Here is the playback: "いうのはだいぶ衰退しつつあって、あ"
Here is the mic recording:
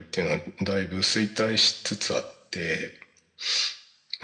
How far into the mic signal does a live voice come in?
none

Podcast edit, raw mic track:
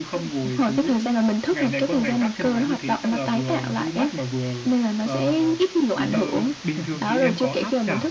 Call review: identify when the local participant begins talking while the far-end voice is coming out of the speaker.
6.1 s

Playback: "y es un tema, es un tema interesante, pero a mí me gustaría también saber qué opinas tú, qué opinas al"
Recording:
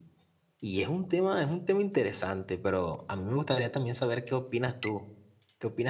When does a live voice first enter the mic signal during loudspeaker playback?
none

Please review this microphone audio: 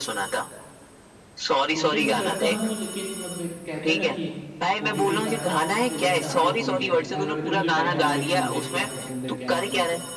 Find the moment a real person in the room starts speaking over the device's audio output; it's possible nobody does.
1.7 s

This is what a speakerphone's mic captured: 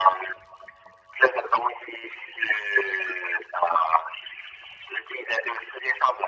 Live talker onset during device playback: none

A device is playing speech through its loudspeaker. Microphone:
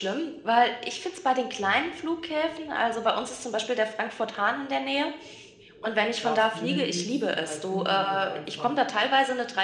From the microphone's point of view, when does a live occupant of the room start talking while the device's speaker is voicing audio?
6.2 s

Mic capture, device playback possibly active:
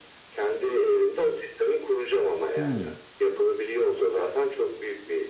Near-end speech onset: 2.6 s

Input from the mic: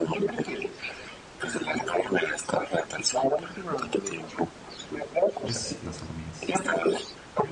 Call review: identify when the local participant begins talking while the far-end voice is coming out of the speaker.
5.4 s

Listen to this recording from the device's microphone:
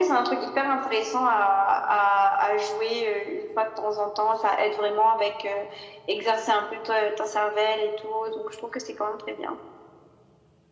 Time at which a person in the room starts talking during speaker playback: none

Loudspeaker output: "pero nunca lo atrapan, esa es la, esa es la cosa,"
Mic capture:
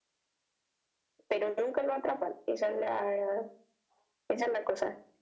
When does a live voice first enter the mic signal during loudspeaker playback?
none

